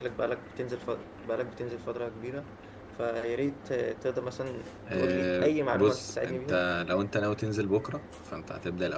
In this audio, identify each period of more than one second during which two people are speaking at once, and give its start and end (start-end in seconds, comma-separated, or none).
4.9-6.5